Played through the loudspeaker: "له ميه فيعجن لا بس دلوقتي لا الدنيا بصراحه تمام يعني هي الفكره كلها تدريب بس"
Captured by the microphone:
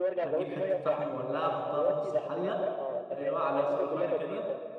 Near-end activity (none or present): present